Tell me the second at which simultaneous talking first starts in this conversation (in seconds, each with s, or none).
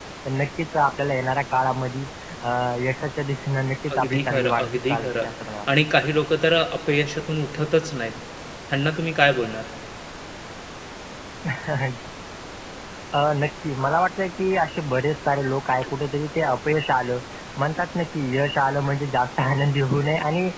3.9 s